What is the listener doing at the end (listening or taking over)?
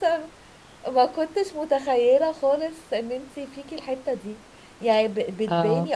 listening